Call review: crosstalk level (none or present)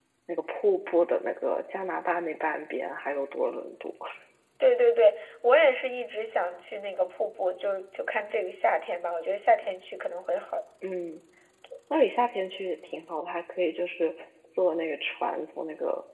none